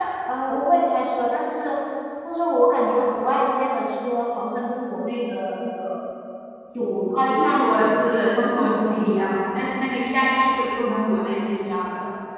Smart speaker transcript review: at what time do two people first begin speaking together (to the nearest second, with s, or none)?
7 s